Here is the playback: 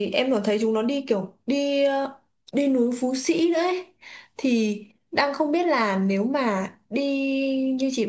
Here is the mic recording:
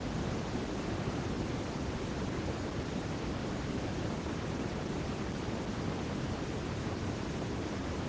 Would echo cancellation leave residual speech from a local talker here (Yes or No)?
No